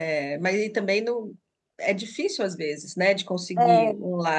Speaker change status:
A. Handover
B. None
A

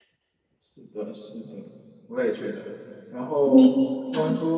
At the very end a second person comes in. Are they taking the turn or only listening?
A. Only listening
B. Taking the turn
A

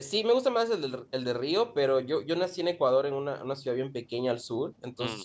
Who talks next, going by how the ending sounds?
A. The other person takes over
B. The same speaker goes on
B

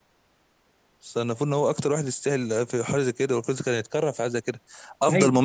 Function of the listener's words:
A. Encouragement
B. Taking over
A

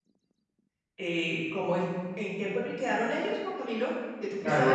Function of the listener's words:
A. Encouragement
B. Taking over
B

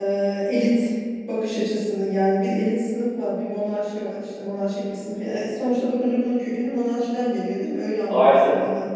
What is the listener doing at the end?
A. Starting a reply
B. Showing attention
B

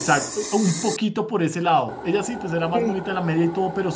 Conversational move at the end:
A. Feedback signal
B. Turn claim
A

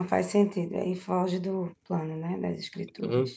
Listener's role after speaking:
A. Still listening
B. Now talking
B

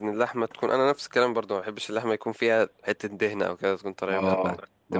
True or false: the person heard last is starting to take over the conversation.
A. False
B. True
B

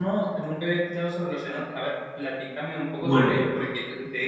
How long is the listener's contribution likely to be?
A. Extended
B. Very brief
B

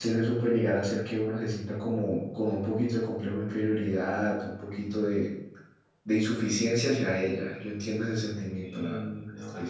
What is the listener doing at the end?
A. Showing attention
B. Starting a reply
B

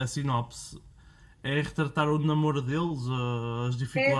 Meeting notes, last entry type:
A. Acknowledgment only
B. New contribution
B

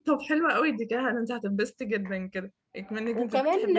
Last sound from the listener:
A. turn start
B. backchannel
A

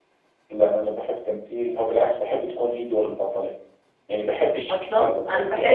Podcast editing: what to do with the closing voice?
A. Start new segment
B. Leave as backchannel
A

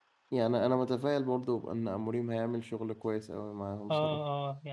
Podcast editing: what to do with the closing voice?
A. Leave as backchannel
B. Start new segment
B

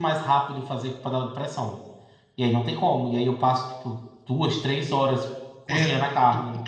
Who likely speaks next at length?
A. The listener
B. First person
A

